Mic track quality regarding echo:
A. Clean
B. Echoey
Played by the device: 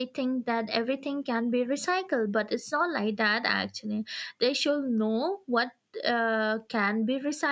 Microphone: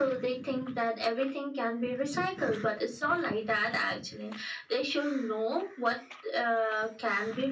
B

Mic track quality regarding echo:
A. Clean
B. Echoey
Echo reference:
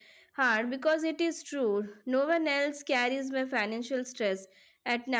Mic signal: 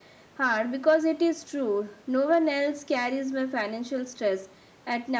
B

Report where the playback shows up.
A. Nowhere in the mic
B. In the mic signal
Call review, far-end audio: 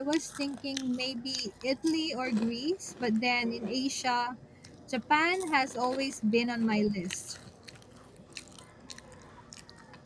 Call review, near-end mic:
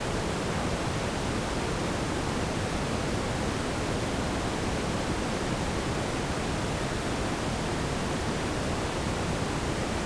A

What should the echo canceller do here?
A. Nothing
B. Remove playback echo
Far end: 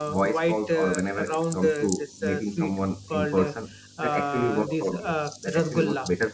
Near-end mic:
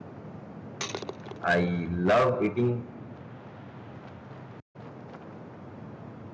A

